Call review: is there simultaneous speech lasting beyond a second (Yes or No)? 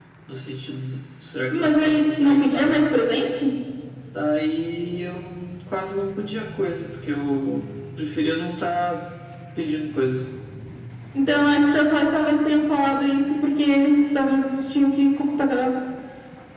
Yes